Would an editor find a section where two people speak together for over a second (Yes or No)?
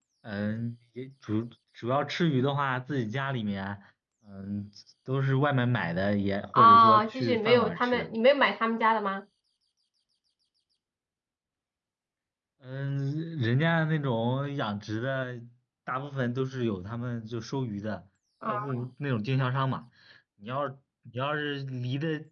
Yes